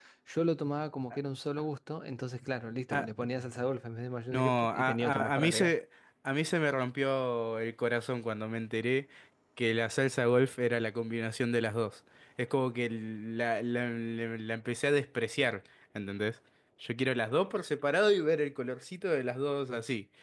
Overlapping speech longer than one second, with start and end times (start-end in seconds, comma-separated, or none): 4.3-5.7